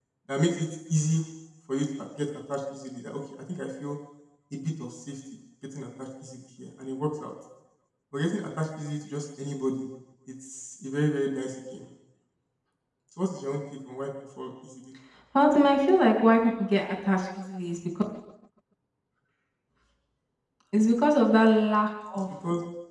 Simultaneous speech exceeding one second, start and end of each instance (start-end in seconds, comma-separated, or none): none